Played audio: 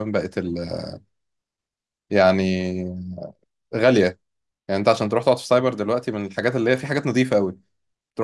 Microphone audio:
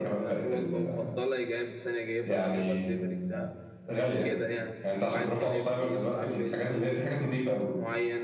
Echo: present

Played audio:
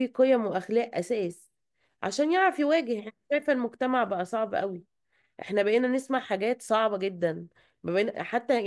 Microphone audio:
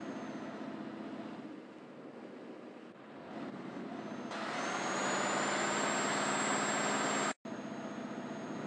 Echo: none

